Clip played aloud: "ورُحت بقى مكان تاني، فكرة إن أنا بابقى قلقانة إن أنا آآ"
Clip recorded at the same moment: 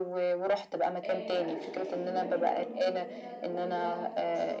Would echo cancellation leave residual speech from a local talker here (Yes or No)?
Yes